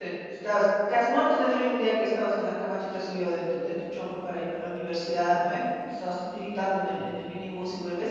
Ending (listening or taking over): listening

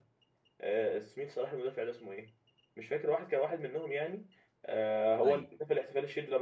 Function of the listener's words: listening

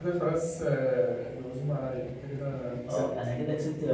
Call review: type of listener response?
taking over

